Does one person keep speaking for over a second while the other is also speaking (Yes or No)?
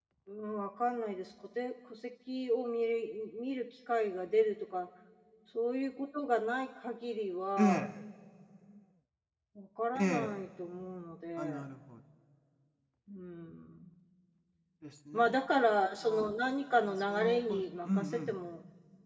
Yes